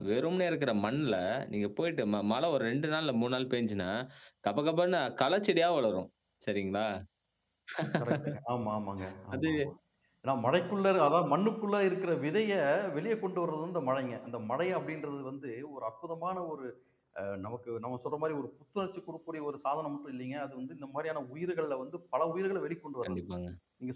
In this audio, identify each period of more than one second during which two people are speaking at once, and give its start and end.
none

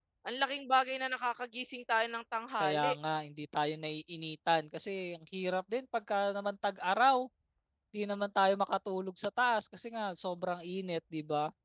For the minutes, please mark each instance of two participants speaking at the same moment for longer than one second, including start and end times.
none

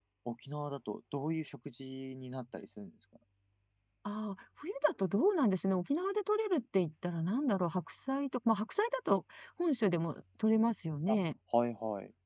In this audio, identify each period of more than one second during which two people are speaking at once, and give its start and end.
none

